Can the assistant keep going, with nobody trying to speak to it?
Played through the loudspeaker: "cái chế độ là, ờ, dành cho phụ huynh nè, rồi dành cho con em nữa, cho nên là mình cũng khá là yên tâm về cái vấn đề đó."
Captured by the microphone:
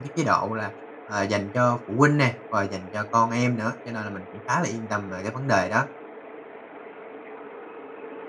Yes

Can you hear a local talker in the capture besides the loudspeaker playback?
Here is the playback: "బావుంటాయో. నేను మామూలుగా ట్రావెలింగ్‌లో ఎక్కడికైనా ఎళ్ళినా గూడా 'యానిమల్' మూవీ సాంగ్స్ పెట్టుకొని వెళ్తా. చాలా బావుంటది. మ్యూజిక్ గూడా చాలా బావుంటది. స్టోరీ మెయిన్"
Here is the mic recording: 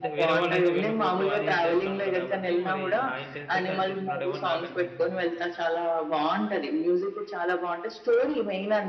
Yes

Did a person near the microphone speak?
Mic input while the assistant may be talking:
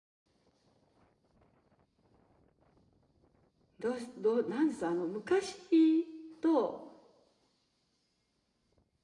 Yes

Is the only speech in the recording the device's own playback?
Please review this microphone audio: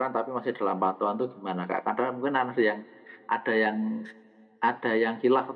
No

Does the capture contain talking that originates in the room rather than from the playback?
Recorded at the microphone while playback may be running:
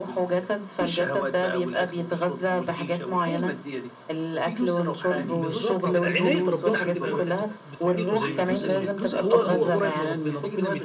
Yes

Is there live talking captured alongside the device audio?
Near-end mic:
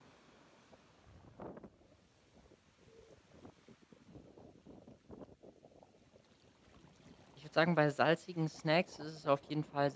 Yes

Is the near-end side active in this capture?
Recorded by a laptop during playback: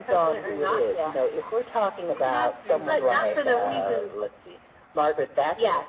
Yes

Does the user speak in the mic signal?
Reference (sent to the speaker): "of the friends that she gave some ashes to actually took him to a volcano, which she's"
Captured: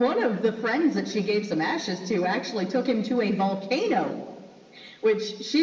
No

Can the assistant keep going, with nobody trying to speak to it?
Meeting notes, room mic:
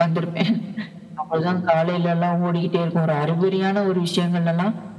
Yes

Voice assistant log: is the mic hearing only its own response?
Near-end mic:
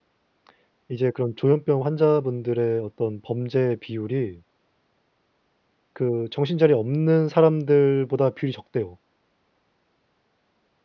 No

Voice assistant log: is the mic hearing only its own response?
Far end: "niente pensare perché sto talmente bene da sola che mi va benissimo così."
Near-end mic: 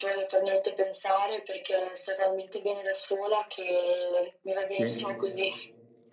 No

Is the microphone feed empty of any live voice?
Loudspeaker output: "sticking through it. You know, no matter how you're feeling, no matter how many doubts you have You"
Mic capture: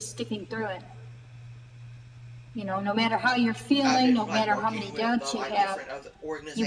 No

